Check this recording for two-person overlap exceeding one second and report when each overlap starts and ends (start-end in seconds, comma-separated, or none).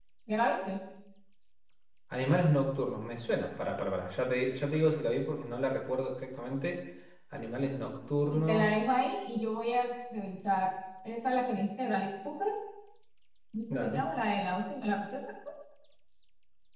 none